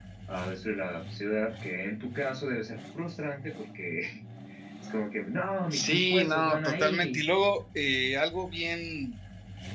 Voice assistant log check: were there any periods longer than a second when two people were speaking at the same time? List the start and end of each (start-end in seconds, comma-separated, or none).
5.7-7.2